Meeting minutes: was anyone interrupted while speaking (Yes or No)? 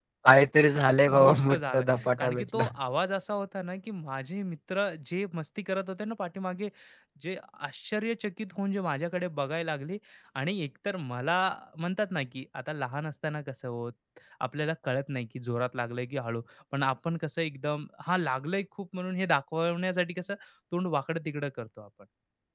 Yes